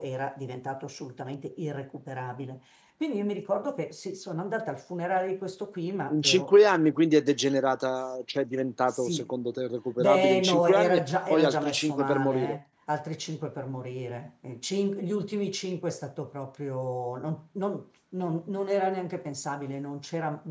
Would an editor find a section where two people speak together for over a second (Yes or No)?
Yes